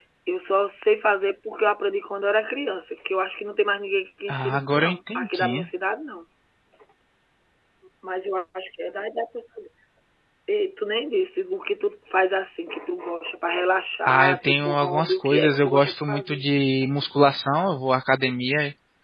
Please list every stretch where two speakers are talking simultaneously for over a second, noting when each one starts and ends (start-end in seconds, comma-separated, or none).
4.3-5.7, 14.1-16.4